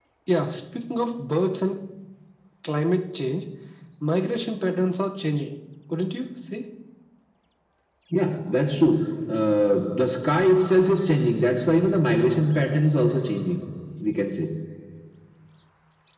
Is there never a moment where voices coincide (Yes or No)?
Yes